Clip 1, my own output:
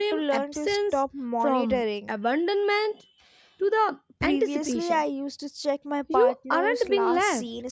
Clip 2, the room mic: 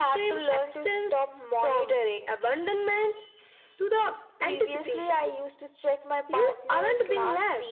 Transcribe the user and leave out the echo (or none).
none